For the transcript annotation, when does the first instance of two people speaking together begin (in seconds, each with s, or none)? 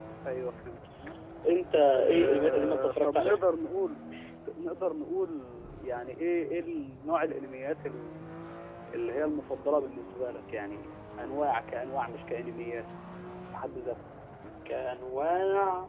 1.9 s